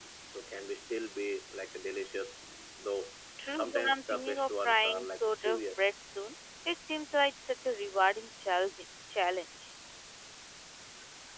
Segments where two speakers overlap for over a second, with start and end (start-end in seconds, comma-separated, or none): 3.5-5.8